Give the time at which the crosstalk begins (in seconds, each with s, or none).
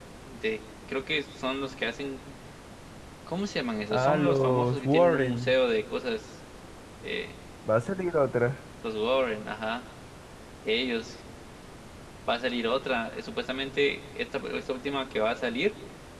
3.9 s